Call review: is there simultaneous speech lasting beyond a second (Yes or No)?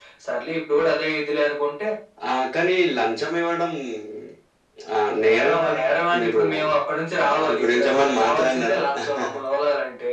Yes